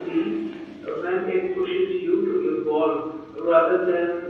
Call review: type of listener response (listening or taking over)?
taking over